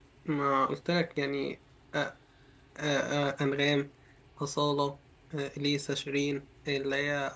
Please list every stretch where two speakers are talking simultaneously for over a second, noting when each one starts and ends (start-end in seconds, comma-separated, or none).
none